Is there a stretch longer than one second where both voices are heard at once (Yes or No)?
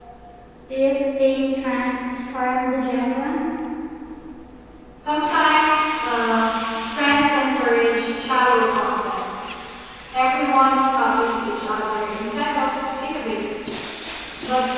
No